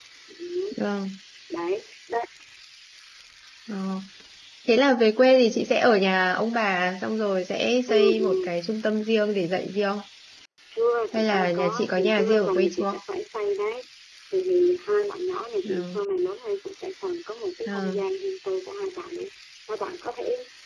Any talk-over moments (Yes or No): Yes